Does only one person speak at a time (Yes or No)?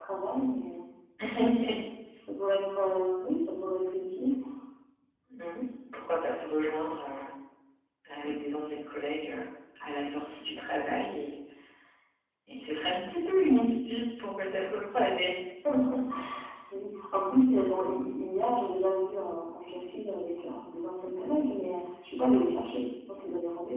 Yes